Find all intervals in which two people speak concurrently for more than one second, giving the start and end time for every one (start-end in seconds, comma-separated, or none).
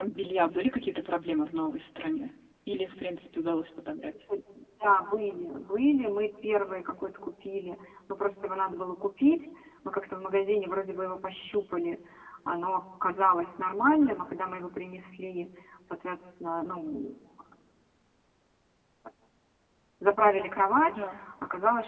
none